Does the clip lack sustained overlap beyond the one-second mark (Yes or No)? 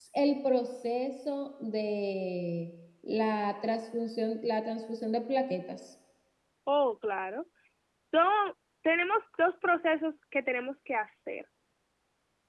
Yes